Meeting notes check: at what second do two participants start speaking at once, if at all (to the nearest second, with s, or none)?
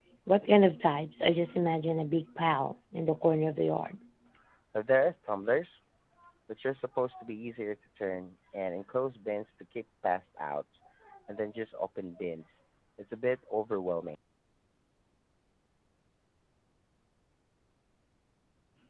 none